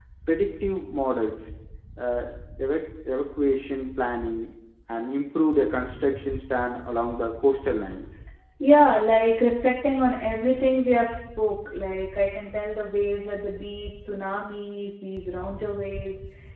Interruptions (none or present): none